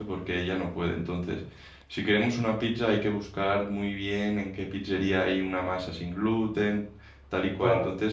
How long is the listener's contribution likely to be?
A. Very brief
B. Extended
A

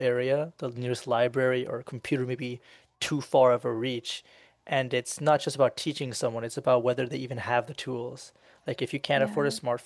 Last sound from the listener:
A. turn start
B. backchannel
B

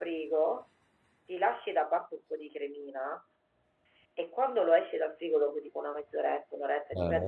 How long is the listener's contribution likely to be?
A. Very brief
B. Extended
A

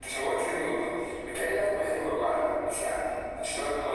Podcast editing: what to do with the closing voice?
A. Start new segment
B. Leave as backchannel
B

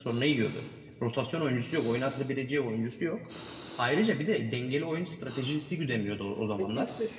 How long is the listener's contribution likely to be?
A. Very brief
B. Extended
B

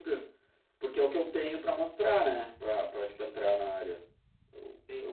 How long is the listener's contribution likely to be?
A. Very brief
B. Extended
B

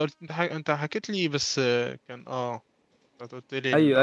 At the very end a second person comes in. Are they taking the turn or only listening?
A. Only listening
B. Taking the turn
B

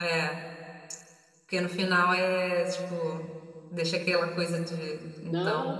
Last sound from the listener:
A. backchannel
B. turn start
B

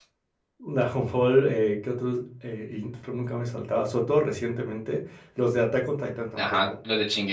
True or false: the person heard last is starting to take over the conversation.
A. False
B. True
B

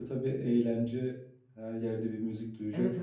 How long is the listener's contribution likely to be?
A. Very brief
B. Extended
B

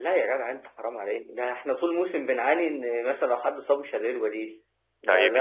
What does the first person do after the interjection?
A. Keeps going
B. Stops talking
B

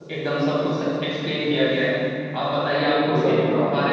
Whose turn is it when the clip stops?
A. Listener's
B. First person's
B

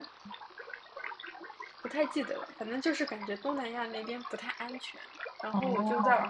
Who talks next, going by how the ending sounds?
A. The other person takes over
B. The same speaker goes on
B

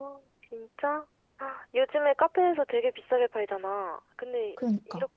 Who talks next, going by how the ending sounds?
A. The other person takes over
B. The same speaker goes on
B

